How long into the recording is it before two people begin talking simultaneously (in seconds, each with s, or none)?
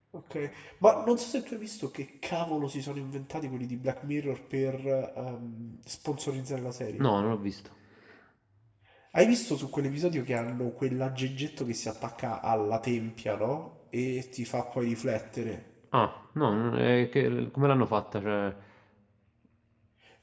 none